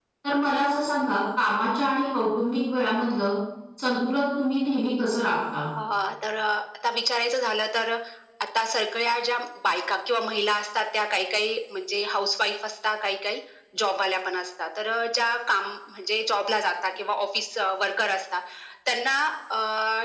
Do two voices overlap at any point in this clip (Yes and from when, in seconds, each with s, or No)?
No